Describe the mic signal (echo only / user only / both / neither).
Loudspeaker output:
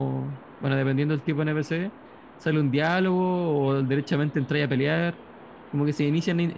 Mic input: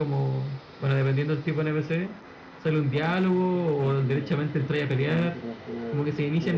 both